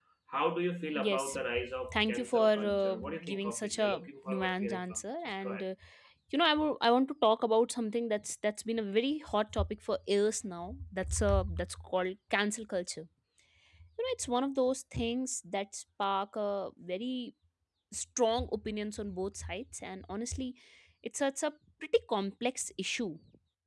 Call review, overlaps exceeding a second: present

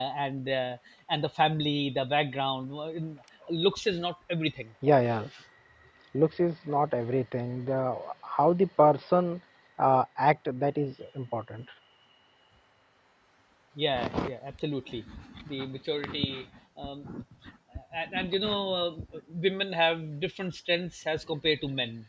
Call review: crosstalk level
none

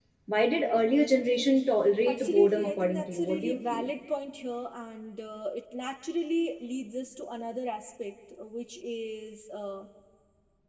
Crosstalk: present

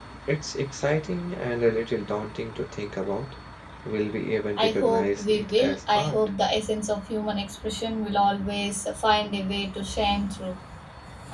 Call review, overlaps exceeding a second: present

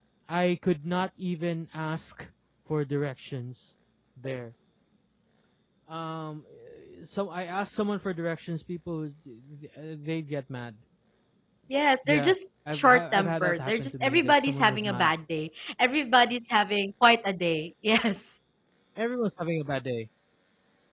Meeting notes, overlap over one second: present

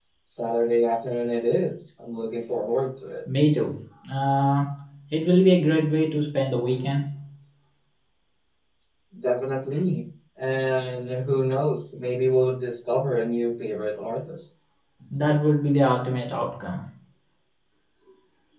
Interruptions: none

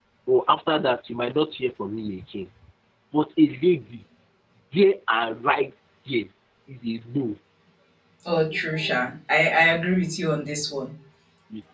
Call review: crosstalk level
none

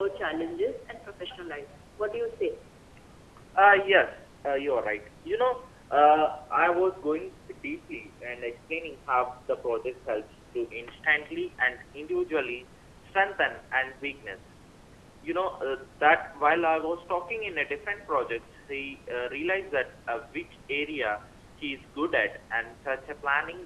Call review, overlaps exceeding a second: none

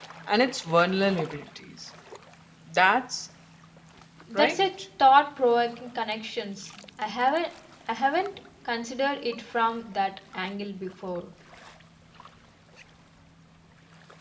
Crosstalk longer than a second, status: none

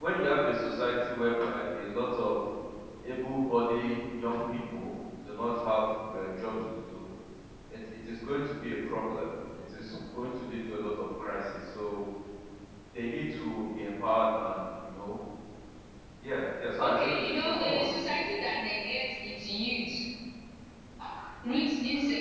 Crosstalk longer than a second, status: present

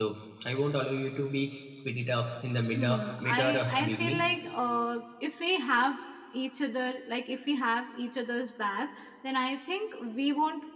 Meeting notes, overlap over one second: present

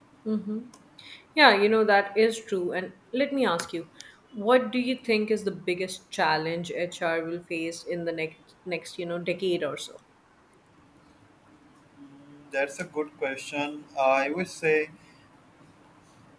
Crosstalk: none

